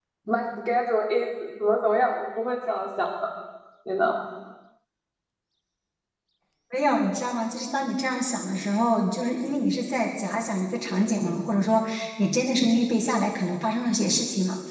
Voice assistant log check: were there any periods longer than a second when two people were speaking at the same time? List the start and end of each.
none

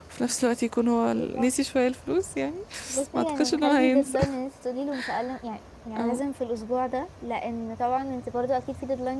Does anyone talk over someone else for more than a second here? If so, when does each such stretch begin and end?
2.9-4.2

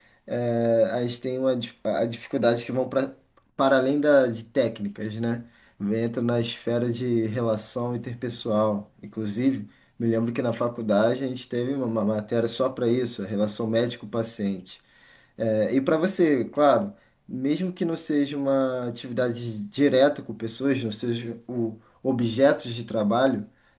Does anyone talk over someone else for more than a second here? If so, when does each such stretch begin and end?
none

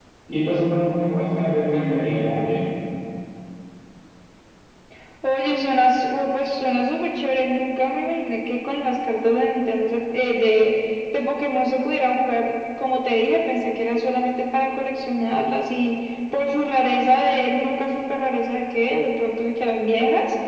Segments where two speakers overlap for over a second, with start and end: none

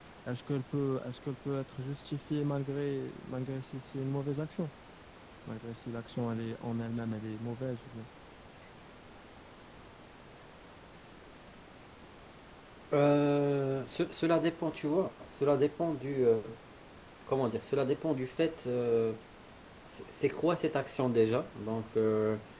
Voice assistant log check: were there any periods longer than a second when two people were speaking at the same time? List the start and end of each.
none

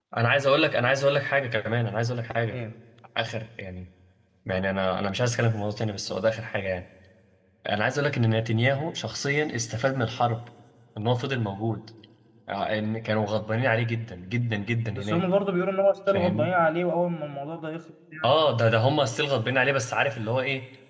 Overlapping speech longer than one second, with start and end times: none

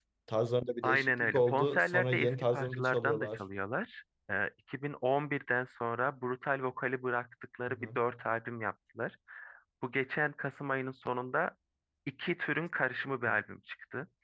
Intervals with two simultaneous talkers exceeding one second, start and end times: 0.8-3.4

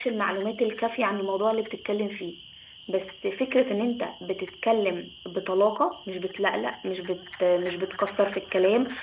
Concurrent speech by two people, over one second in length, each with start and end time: none

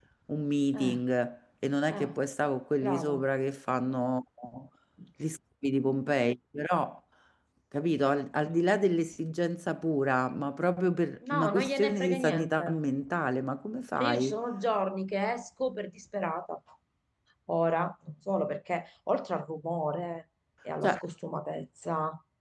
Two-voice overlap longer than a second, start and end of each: 11.3-12.6

